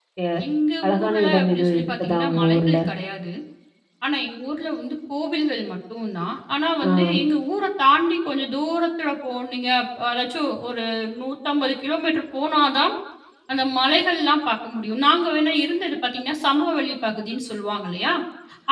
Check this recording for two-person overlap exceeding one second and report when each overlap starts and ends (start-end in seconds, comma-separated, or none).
0.9-2.8